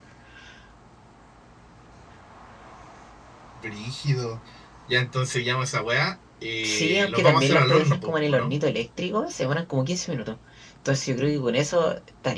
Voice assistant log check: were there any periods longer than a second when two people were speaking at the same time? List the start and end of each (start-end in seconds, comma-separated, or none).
6.6-8.5